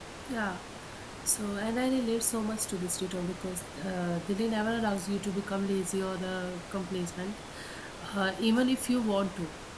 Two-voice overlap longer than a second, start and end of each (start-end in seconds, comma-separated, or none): none